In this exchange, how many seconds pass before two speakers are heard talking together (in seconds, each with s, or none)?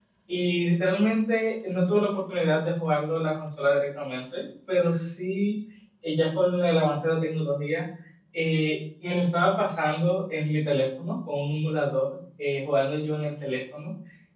none